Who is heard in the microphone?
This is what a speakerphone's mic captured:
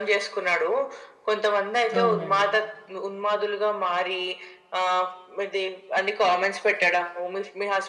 both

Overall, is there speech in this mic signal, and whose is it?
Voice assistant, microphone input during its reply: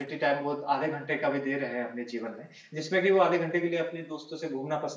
user only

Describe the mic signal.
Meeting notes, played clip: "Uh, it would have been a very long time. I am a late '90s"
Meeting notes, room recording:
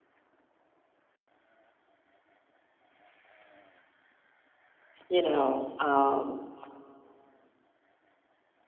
user only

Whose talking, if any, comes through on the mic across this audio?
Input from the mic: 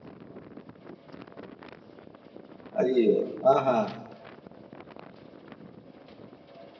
user only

